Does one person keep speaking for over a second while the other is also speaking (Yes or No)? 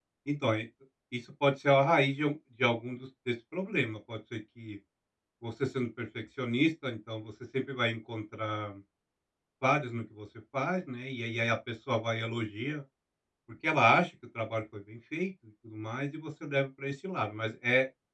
No